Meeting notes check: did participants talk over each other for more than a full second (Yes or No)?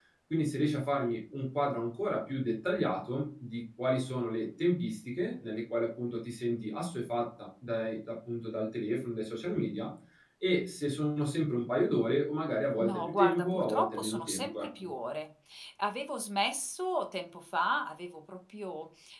Yes